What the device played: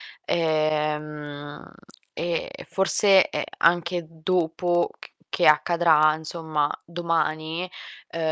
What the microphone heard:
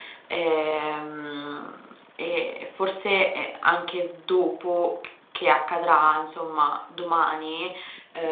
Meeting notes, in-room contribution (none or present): none